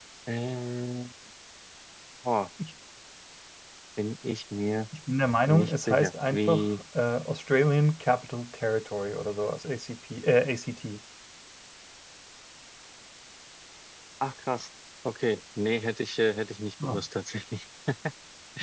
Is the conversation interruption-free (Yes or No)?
No